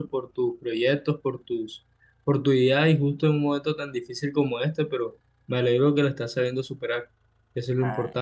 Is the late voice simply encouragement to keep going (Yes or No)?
No